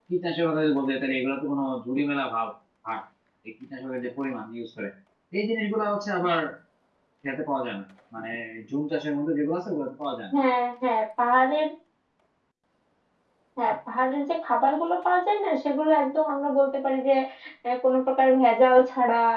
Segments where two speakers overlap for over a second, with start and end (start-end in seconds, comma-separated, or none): none